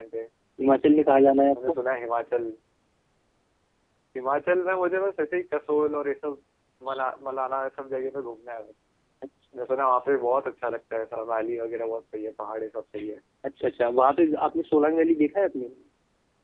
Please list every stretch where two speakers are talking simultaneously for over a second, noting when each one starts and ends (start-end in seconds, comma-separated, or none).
none